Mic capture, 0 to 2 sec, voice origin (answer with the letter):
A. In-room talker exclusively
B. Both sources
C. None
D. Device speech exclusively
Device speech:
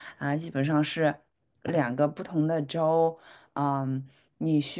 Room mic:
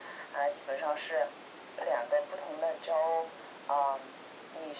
D